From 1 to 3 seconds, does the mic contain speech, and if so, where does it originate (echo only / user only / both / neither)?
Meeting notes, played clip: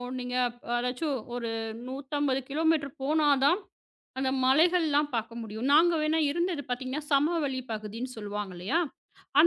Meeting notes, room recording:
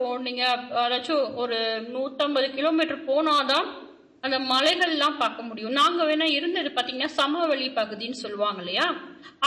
echo only